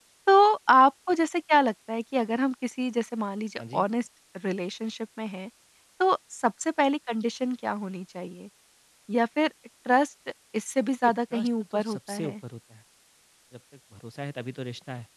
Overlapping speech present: Yes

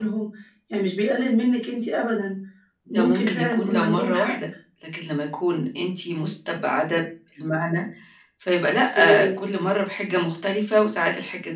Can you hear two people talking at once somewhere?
Yes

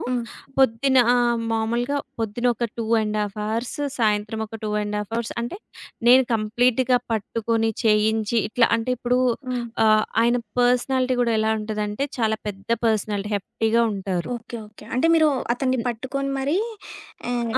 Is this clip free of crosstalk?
Yes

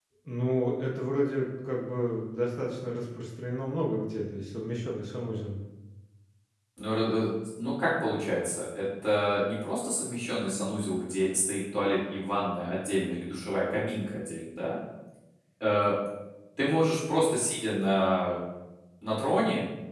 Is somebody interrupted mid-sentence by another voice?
No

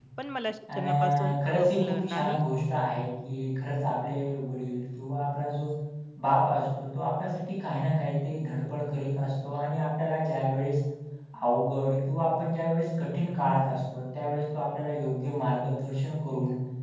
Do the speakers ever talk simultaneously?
Yes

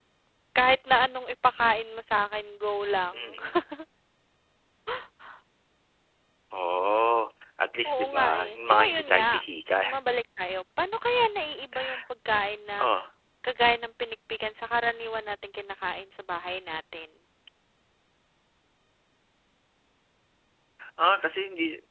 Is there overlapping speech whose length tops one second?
Yes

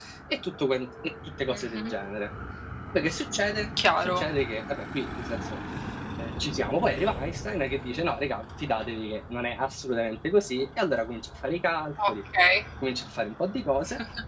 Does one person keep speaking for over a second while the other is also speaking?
No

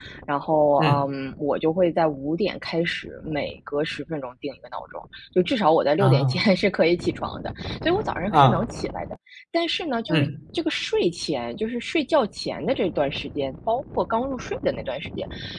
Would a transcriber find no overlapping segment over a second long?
Yes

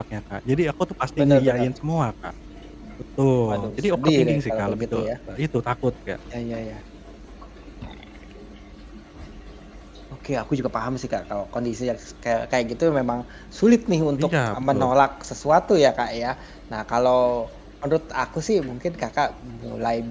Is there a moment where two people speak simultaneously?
Yes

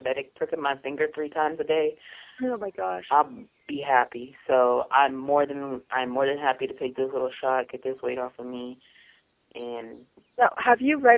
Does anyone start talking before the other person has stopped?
No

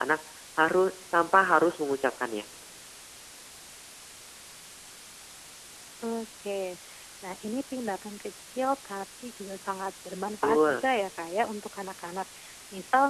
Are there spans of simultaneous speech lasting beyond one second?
No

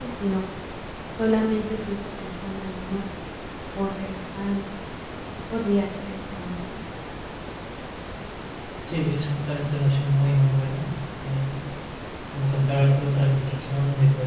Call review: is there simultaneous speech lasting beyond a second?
No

